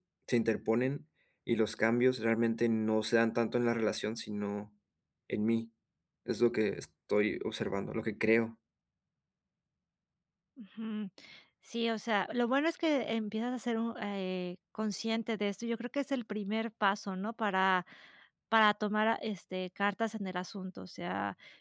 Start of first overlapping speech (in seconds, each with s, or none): none